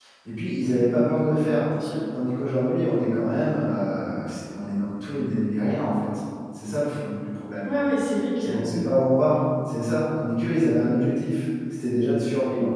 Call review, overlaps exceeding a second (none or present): none